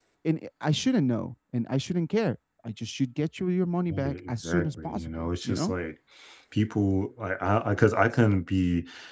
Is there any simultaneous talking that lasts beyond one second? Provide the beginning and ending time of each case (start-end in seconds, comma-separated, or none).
3.9-5.7